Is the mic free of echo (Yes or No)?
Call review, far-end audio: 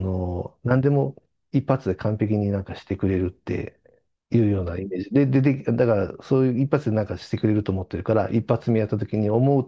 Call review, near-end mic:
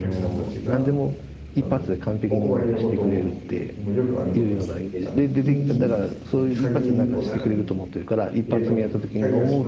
No